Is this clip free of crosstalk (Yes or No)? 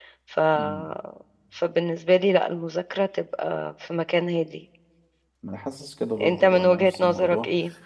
No